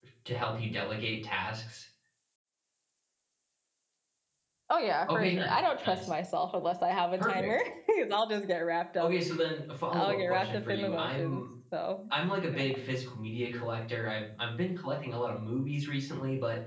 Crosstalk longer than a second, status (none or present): present